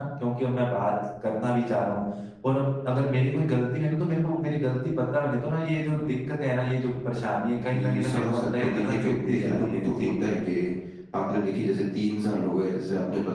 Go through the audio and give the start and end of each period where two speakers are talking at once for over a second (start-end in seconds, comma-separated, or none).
7.7-10.1